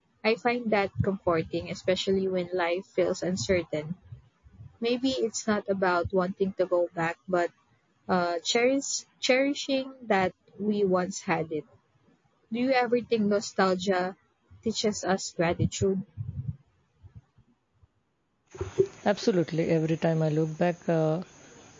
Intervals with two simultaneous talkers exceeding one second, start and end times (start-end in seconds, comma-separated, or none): none